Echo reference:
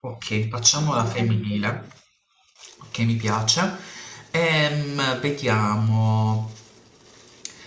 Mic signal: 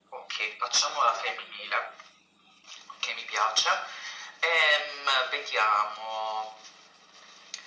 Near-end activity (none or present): none